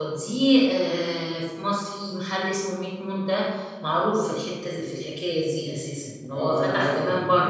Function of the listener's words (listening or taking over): taking over